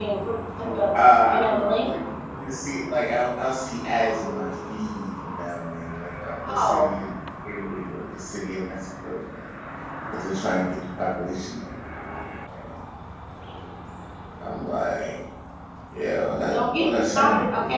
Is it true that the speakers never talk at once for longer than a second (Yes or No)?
No